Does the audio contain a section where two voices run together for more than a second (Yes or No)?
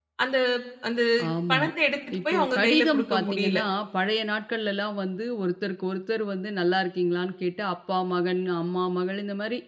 Yes